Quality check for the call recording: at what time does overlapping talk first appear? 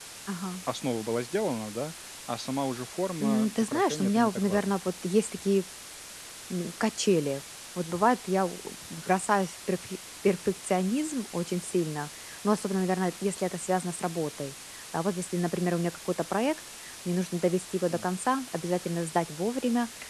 3.2 s

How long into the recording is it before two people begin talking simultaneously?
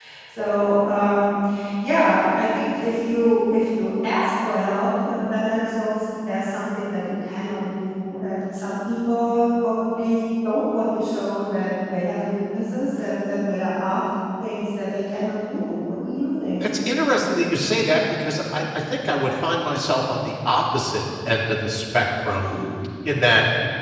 none

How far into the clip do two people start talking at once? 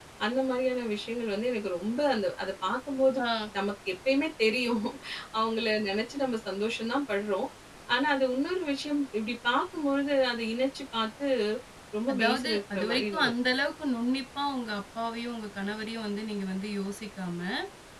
12.1 s

